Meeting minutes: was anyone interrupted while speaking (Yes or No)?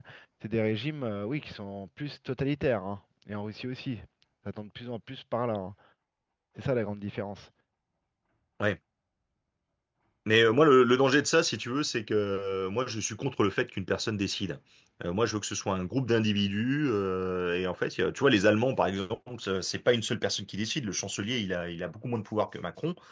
No